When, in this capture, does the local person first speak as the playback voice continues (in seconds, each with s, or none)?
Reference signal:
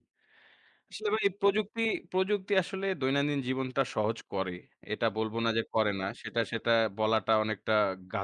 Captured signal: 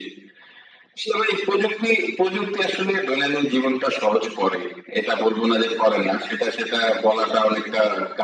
none